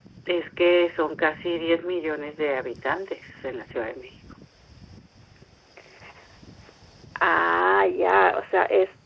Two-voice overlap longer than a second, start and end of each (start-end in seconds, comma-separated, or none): none